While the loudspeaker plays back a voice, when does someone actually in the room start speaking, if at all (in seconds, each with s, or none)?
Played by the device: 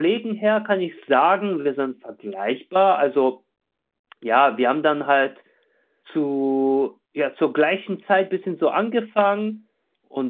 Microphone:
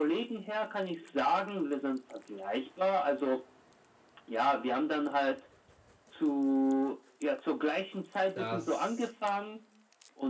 8.3 s